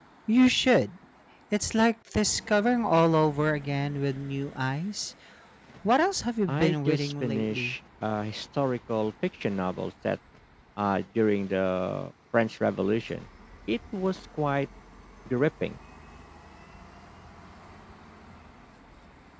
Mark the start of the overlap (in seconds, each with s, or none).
6.5 s